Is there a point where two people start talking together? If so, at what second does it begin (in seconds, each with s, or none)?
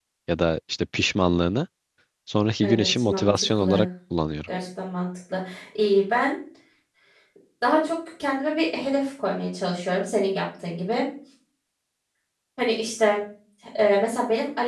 2.6 s